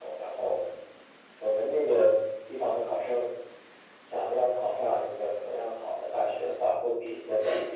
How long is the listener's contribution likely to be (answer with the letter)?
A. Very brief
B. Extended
A